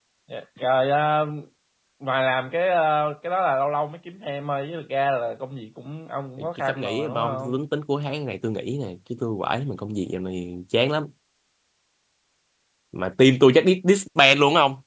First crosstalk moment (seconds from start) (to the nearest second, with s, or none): 6 s